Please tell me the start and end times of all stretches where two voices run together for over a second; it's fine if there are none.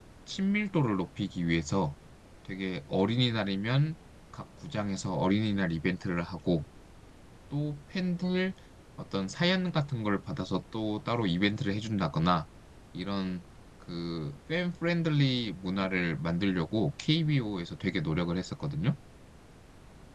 none

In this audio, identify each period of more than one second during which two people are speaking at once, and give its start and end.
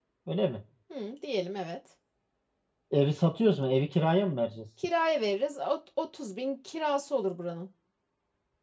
none

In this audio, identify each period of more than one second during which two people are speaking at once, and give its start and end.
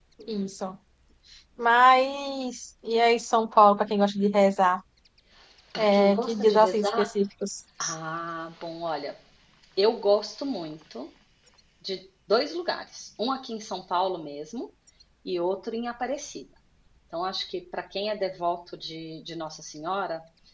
5.8-7.1

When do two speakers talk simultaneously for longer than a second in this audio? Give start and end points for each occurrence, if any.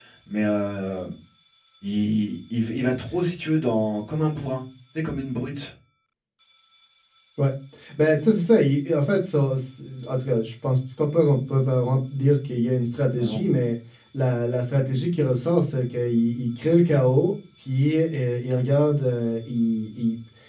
none

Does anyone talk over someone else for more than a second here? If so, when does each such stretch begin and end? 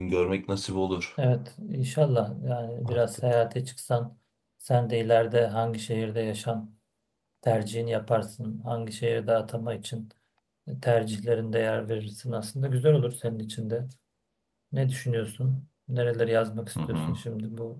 none

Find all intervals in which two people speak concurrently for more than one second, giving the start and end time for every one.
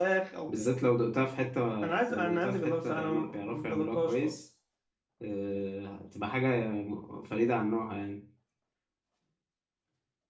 2.1-4.3

